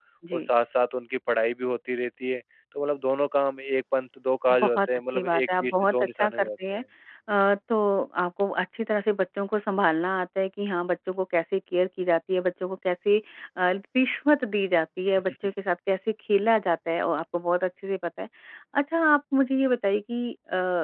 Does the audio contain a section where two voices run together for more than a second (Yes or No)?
Yes